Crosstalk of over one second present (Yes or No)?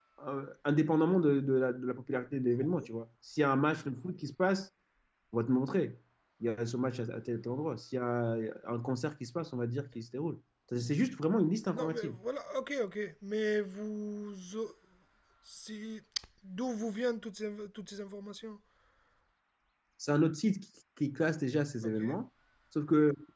No